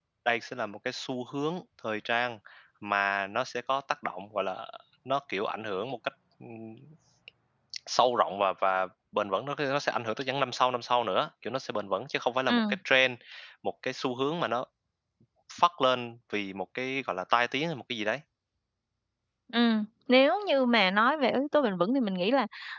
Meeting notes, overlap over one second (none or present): none